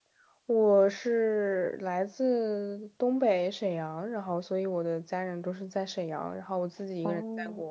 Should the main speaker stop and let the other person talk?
No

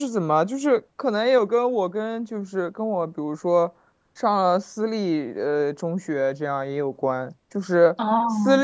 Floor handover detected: No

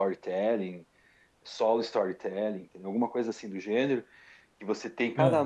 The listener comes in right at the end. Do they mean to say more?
No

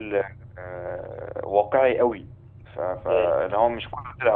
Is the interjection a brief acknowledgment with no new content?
Yes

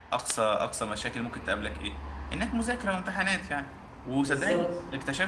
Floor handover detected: No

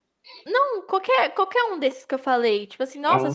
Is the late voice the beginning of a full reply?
No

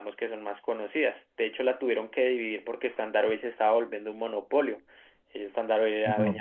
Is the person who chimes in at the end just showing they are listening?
Yes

